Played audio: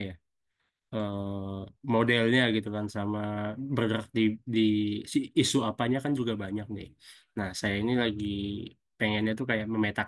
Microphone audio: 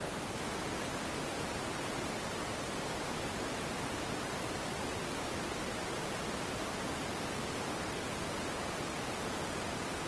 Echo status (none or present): none